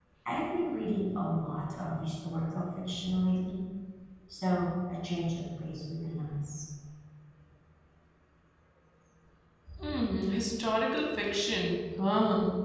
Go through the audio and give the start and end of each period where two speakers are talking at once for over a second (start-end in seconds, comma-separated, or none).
none